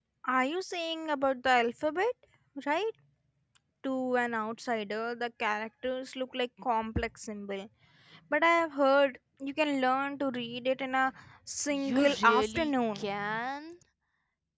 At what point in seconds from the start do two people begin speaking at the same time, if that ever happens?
12 s

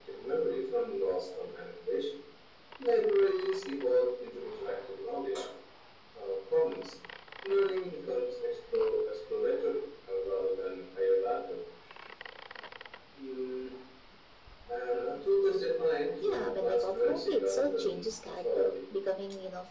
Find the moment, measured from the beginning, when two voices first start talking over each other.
16 s

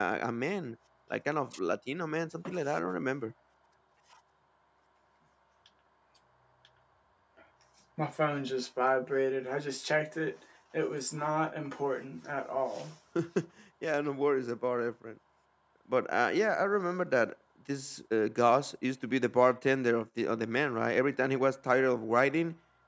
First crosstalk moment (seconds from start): none

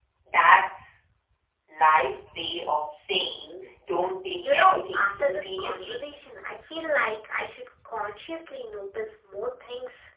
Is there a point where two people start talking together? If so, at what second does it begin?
4 s

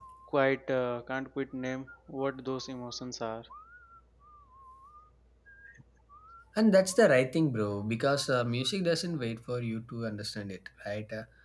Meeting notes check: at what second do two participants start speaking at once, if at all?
none

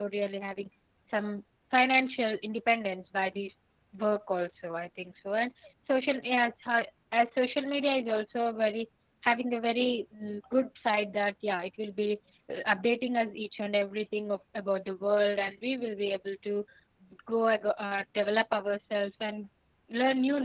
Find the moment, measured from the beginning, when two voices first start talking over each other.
none

